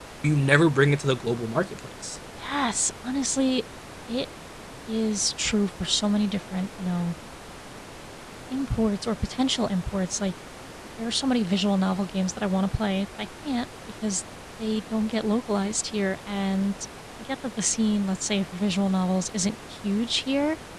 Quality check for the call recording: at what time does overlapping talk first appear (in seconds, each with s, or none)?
none